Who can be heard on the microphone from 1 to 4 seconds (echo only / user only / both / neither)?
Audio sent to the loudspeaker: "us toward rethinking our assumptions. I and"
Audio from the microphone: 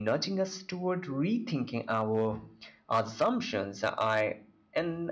echo only